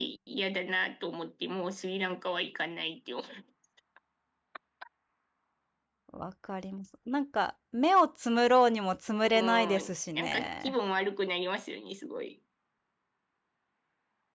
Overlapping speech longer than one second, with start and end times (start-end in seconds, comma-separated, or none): 9.2-10.7